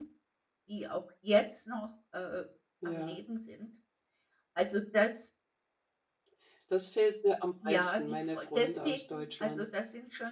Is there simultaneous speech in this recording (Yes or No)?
Yes